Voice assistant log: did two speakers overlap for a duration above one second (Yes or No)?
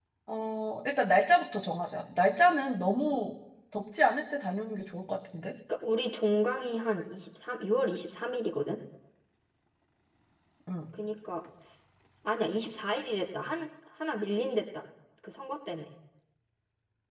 No